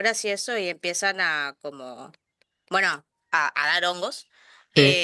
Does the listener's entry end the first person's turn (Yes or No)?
No